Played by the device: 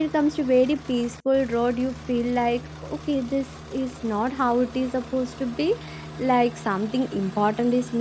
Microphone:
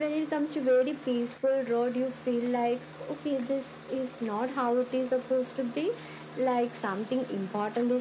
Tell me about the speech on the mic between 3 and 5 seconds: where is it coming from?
echo only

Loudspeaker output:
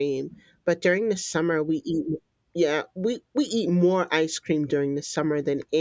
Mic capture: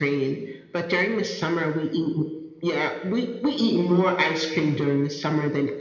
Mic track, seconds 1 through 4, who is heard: echo only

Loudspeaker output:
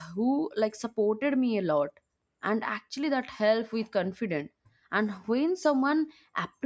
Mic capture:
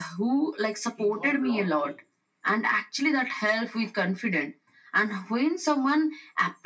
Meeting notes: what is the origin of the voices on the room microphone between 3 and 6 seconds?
echo only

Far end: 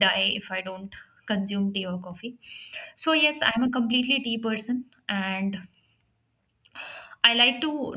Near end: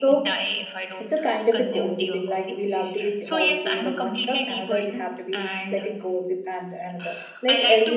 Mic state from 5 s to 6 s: both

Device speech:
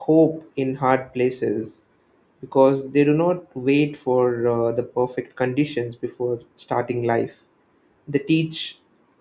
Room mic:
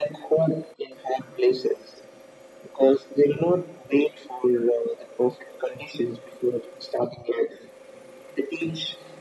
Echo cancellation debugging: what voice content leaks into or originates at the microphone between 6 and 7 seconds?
echo only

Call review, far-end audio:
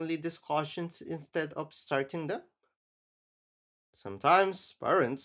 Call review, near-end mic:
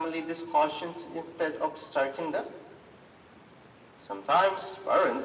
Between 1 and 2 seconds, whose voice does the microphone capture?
echo only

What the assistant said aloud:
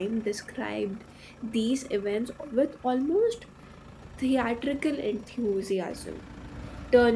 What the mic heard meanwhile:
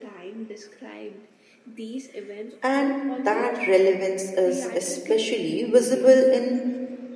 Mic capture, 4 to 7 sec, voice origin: both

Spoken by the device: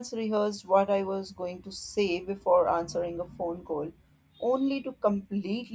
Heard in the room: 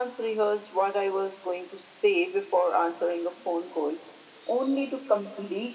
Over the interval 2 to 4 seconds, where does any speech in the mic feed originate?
echo only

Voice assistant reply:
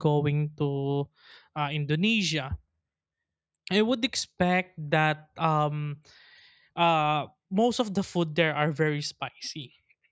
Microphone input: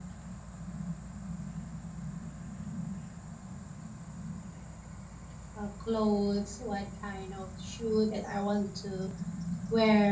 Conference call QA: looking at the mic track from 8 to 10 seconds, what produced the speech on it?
user only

